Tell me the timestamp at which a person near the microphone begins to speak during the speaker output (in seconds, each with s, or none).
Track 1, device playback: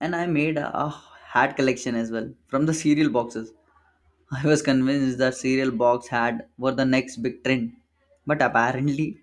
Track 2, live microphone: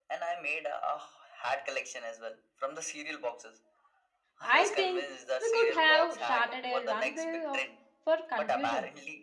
4.4 s